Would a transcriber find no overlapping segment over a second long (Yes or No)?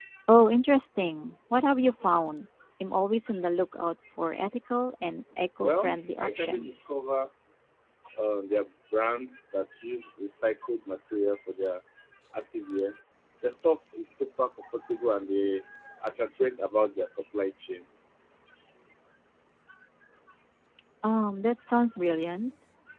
No